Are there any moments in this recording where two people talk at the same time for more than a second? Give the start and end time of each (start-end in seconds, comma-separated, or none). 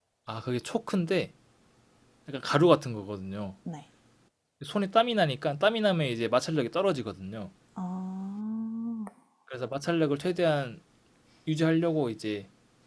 none